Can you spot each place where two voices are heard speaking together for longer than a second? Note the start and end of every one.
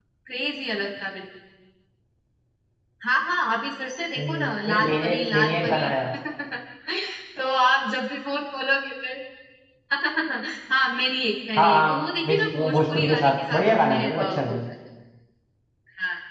4.2-5.9, 11.6-14.7

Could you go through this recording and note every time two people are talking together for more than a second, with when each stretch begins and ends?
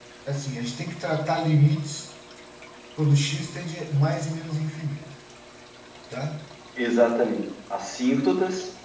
none

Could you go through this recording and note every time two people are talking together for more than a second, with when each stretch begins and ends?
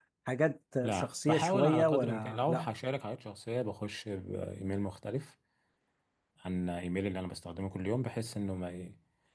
0.8-2.7

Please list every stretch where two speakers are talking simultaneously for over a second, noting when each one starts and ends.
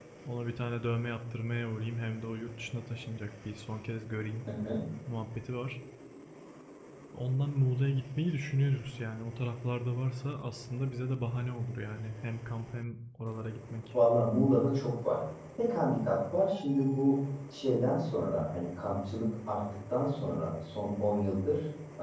none

